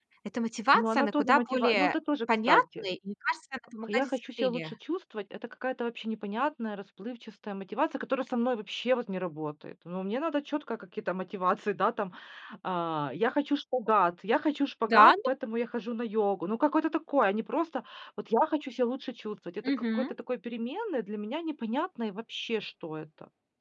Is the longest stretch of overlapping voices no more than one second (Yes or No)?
No